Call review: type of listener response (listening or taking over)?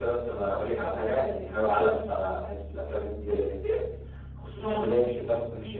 listening